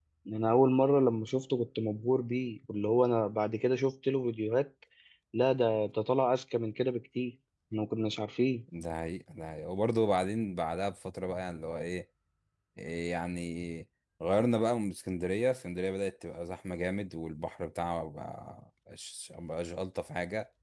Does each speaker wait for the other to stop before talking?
Yes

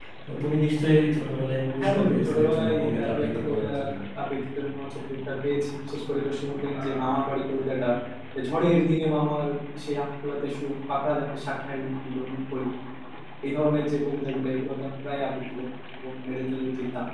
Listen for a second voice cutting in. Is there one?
Yes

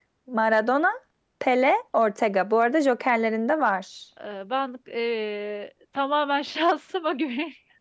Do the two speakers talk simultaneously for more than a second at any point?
No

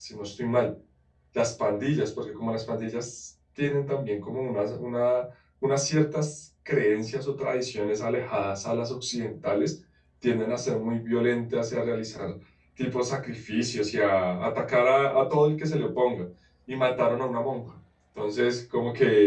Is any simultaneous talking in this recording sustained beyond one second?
No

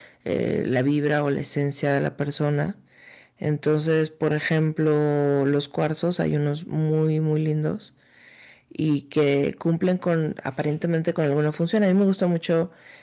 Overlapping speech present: No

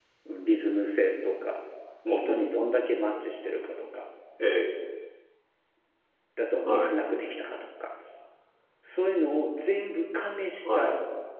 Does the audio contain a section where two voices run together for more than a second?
No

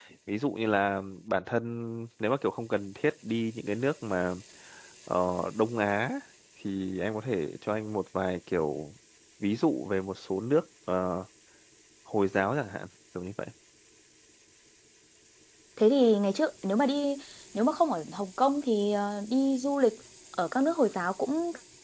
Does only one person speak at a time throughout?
Yes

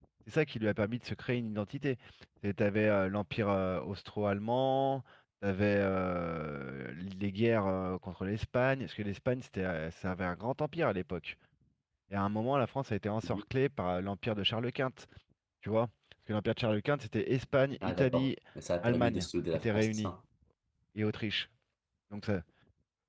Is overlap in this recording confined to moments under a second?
No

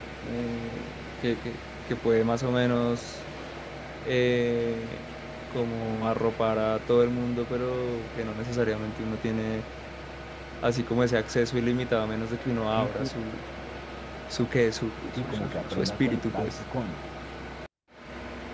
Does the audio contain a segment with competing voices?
Yes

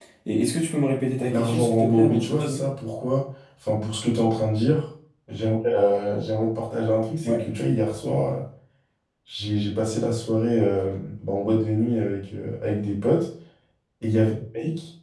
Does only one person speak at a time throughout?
No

